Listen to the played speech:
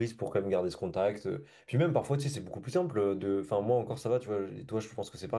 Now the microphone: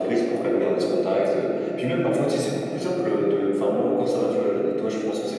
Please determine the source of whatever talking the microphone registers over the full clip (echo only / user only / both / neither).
echo only